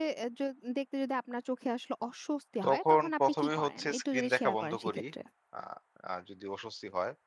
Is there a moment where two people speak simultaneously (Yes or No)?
Yes